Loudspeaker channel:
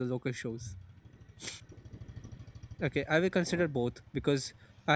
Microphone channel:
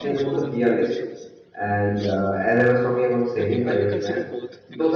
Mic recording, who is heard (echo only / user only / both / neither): both